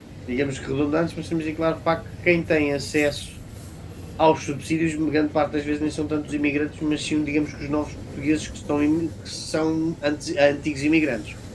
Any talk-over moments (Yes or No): No